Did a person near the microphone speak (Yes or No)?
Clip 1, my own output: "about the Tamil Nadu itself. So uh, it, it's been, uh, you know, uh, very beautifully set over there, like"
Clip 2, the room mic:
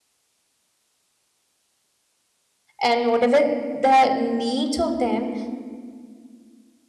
Yes